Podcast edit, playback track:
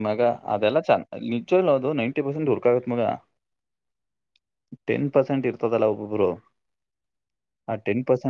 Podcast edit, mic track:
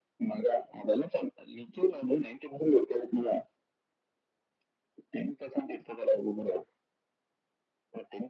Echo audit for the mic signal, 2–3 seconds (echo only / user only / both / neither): echo only